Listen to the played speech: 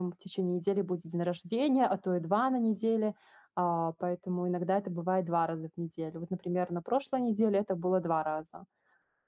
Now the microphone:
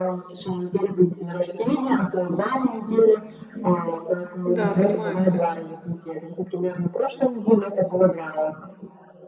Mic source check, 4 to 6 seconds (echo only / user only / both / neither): both